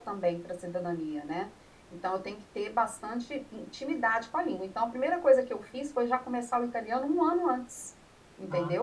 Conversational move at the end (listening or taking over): taking over